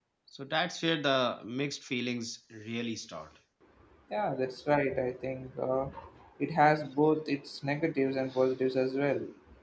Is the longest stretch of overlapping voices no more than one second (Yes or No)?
Yes